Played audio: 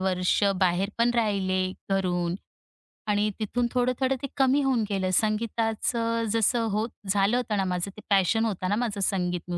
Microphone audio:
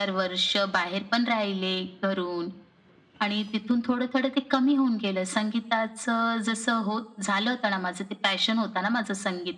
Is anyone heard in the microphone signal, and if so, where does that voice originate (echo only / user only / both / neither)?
echo only